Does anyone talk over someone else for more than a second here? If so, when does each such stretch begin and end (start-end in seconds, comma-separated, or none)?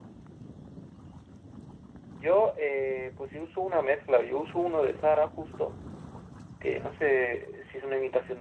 none